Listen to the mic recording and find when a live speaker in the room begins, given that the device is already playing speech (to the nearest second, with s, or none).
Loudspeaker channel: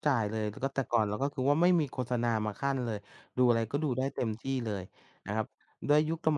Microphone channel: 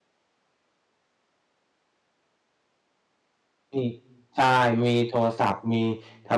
4 s